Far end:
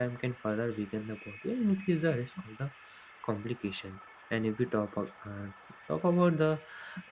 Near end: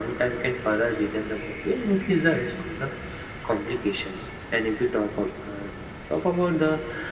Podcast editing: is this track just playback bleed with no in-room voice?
Yes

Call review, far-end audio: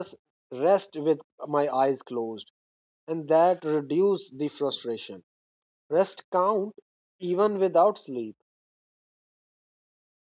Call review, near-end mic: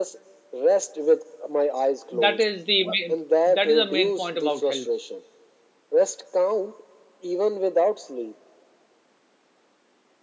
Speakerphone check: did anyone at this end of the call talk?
Yes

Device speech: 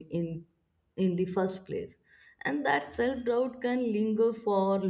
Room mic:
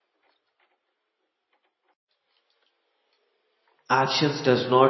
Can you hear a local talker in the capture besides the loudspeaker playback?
Yes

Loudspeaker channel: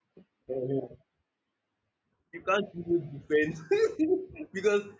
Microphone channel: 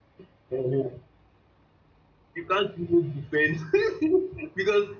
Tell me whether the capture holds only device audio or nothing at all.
Yes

